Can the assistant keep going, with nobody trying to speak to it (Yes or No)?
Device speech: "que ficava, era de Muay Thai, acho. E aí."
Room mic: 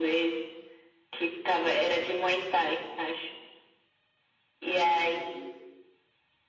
Yes